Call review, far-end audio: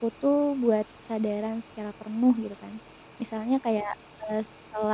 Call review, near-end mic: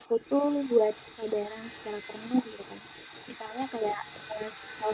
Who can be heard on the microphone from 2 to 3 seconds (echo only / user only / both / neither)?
echo only